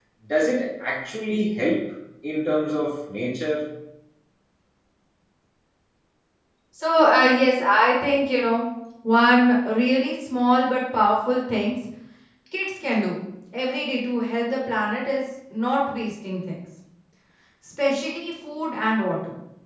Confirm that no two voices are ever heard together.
Yes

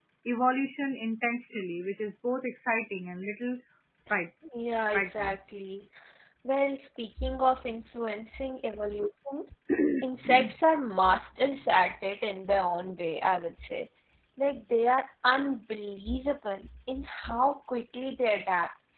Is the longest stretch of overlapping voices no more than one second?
Yes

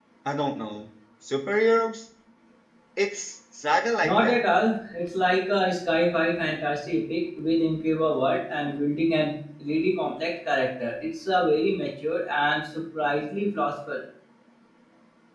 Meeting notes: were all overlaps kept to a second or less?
Yes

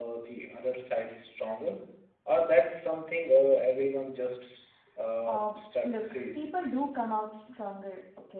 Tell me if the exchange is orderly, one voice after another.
No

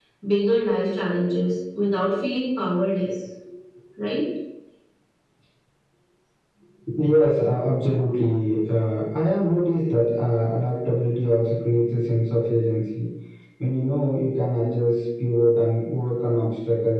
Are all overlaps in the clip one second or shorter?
Yes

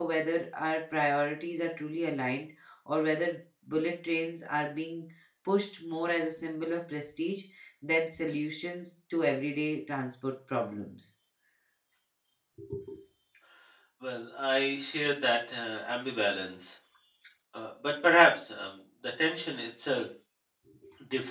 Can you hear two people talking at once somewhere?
No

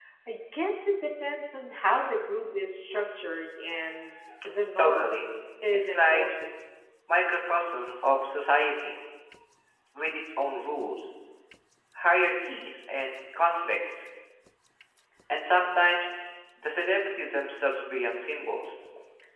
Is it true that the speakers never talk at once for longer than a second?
Yes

